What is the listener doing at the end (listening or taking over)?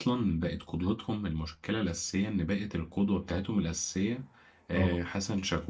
listening